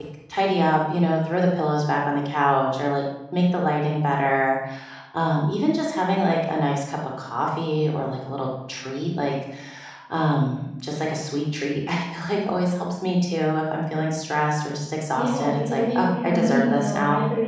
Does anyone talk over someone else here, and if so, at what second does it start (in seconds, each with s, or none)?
15.2 s